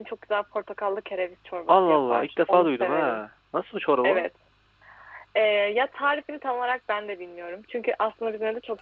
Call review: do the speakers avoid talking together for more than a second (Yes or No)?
No